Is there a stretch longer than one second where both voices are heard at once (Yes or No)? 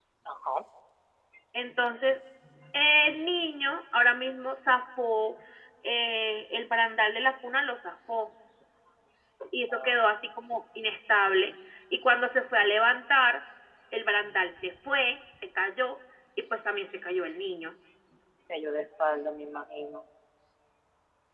No